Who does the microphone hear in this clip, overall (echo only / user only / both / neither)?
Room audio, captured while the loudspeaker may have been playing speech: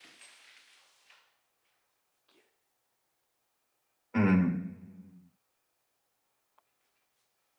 user only